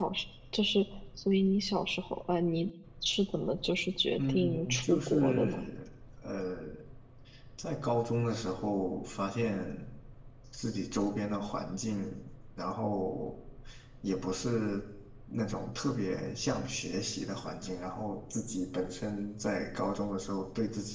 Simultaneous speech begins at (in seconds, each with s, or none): 4.2 s